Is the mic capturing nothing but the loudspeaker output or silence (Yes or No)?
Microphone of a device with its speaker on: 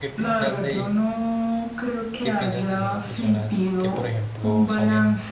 No